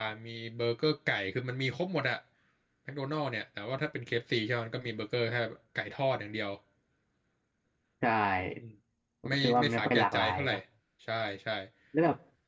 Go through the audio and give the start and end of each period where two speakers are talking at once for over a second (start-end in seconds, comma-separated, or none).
9.3-10.6